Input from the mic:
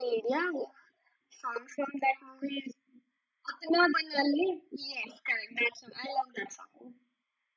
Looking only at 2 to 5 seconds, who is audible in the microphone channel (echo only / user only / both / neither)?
echo only